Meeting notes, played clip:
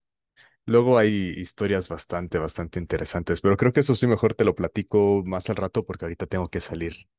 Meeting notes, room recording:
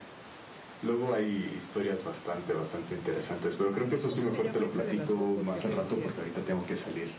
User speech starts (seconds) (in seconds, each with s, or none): 3.8 s